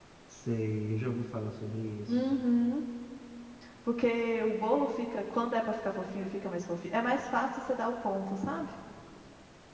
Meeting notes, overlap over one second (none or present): none